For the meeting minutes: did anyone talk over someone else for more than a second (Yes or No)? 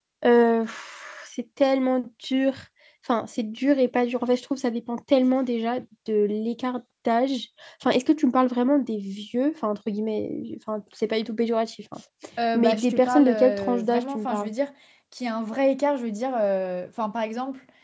Yes